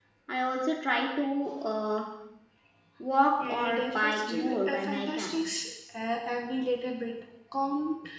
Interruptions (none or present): present